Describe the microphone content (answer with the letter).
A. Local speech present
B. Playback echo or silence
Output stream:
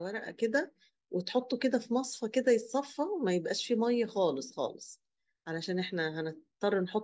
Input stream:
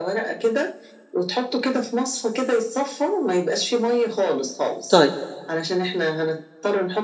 A